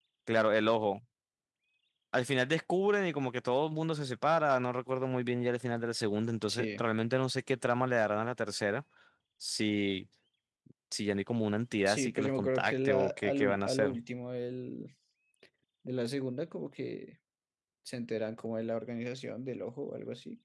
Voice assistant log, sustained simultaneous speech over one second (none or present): present